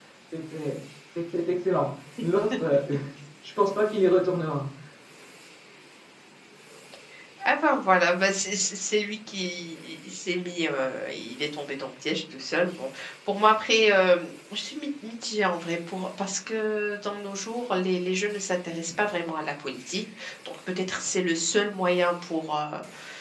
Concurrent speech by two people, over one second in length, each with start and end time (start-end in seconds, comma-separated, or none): none